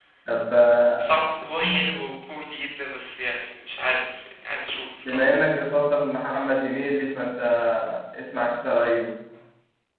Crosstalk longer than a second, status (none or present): none